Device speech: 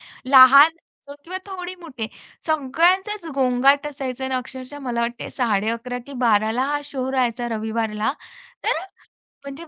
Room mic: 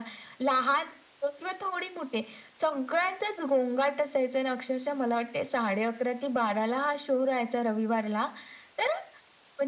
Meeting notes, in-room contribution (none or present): none